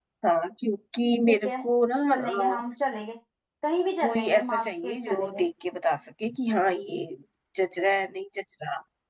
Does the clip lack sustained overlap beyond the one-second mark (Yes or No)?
No